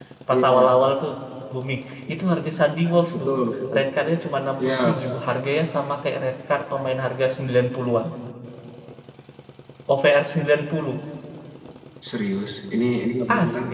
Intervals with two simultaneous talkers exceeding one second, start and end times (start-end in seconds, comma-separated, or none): none